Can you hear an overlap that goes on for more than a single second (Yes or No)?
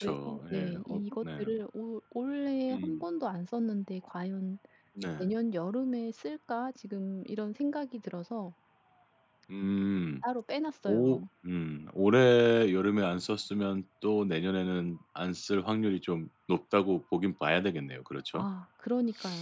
Yes